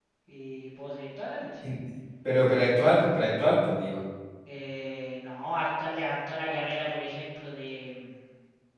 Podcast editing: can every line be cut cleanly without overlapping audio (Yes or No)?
Yes